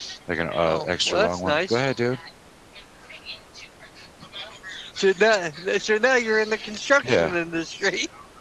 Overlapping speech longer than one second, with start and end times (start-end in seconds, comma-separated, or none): 0.6-1.8